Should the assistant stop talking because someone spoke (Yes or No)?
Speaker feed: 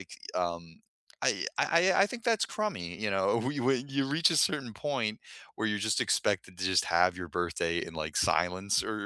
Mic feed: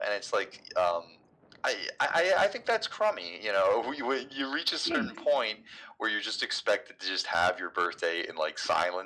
Yes